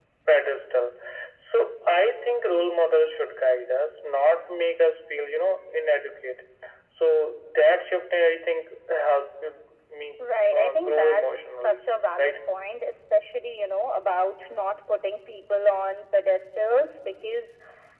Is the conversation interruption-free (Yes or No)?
No